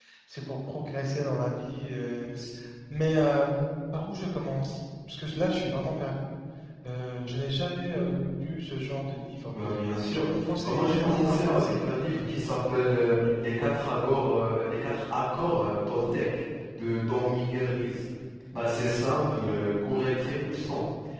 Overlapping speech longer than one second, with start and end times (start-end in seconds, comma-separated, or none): 10.1-11.9